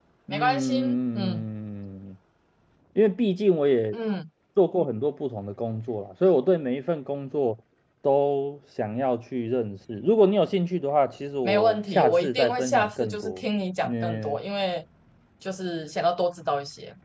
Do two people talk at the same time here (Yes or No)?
Yes